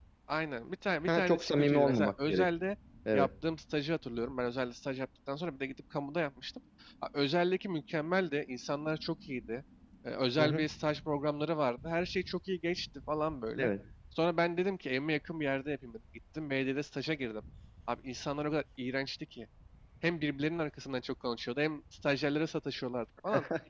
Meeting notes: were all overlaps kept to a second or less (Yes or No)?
No